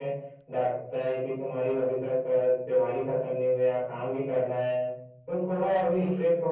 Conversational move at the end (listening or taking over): listening